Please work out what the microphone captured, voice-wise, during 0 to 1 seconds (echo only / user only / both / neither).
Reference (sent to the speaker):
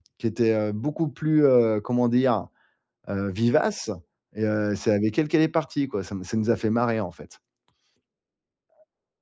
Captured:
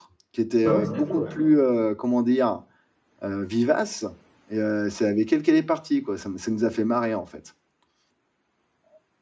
both